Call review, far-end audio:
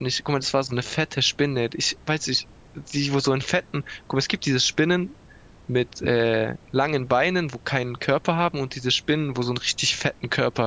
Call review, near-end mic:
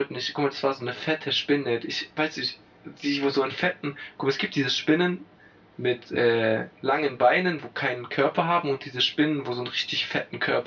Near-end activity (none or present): none